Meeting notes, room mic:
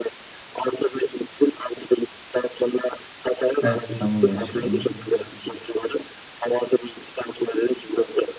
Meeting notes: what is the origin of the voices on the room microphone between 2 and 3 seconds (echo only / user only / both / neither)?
echo only